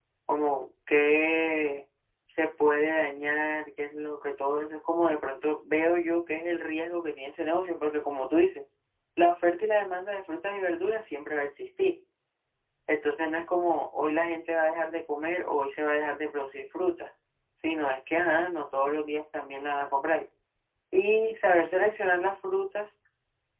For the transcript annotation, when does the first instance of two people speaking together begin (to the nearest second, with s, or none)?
none